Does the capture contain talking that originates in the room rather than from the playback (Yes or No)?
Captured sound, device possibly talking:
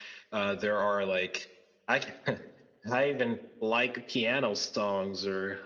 No